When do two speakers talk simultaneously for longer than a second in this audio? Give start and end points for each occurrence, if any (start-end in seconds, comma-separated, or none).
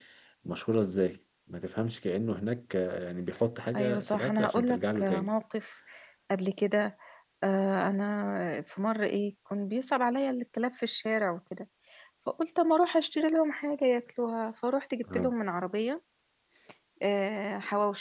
3.8-5.3